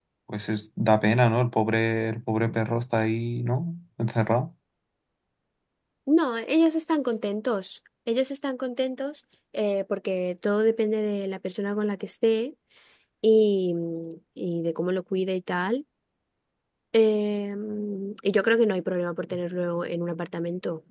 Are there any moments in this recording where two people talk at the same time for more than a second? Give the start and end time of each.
none

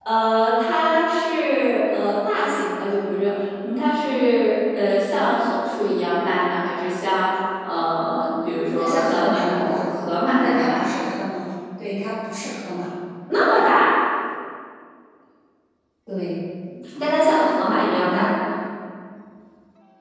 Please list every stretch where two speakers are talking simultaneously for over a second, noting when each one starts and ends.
8.8-10.0

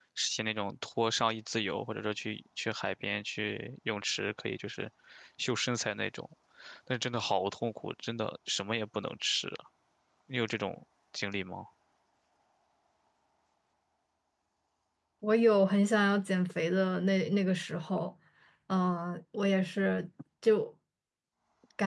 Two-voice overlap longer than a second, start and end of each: none

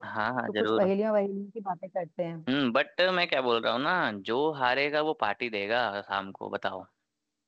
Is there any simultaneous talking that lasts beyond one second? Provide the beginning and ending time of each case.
none

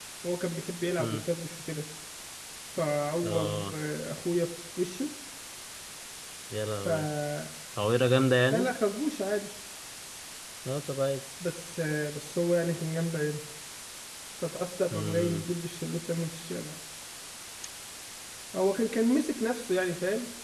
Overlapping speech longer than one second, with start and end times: none

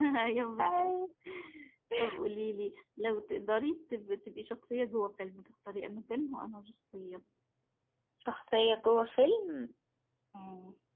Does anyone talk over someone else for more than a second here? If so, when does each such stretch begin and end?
none

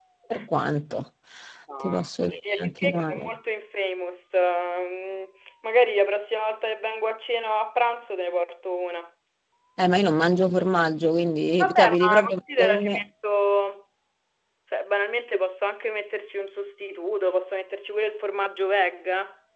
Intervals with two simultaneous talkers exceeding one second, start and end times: 1.8-3.3, 11.6-13.0

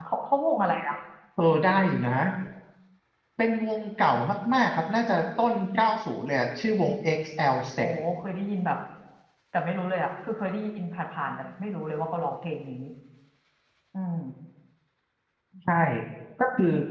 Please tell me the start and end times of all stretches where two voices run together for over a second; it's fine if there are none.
none

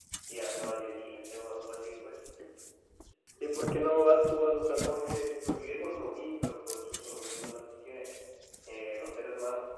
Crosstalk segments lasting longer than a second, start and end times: none

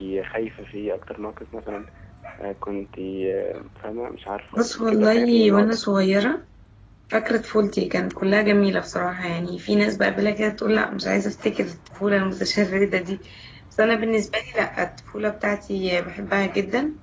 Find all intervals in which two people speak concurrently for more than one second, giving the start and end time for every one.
4.6-5.8

